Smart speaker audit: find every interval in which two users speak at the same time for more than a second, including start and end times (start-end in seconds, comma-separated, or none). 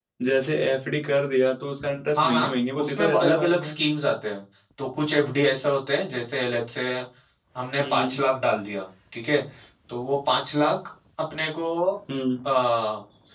2.2-3.8